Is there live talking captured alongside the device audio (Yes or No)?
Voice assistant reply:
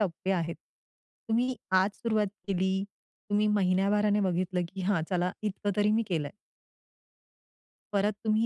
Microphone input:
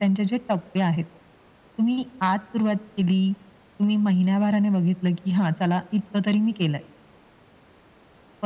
No